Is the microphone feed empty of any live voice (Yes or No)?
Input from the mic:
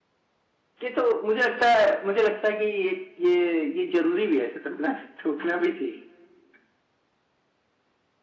Yes